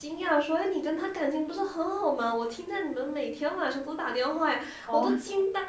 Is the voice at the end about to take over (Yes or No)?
No